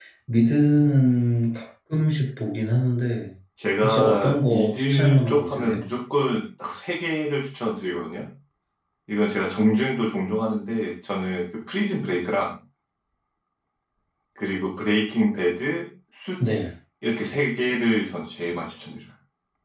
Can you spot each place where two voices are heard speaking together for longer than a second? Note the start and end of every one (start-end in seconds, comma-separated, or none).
3.8-5.8